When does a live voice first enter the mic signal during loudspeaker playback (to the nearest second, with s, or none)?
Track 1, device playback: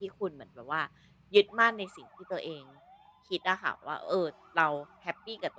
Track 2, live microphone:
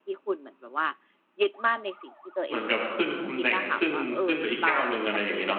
2 s